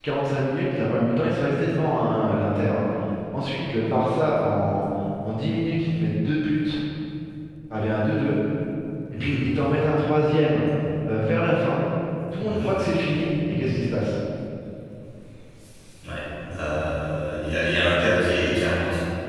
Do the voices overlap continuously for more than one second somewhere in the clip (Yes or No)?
No